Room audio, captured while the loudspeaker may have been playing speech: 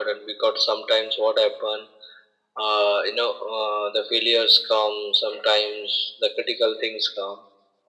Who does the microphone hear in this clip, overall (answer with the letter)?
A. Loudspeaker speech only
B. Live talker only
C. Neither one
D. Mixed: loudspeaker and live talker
A